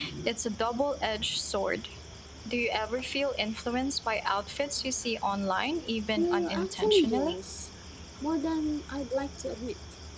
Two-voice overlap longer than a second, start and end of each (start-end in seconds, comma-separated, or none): 6.2-7.4